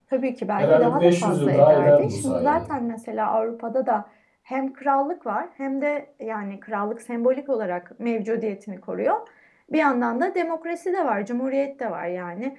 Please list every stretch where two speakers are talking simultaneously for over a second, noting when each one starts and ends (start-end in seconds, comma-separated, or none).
0.6-2.6